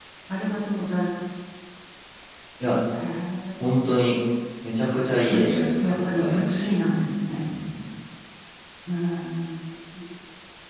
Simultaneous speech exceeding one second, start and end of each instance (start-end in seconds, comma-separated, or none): 5.3-6.7